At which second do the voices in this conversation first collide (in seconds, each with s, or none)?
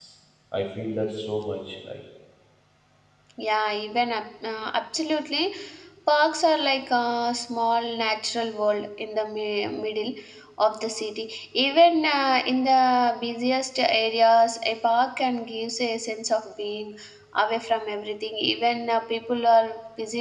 none